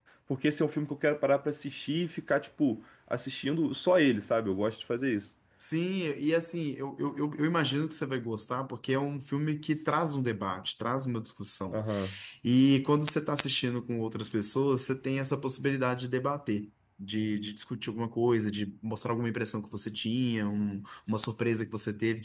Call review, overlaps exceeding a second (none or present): none